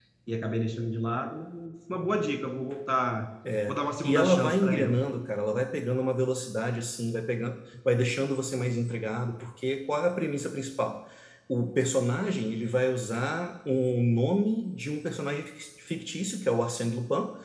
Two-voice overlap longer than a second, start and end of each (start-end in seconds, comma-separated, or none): 3.7-5.0